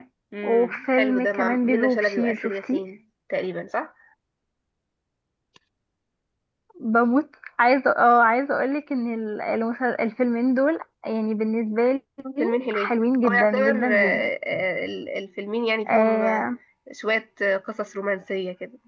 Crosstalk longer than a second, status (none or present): present